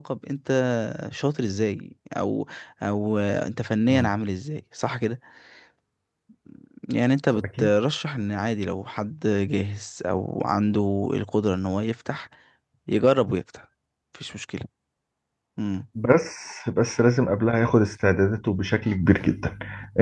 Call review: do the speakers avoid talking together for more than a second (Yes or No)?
Yes